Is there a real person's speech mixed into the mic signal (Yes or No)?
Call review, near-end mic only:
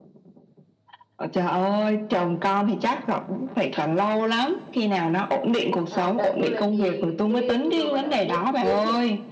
Yes